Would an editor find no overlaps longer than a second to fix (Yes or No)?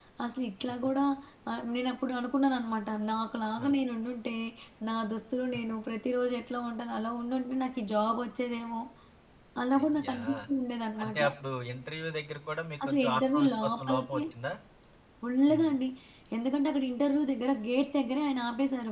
No